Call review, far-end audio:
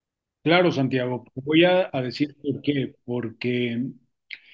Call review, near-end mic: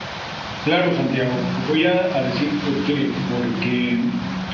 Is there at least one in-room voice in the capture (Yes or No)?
No